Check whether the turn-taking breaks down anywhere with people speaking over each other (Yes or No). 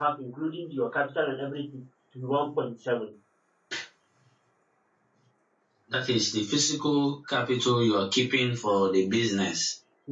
No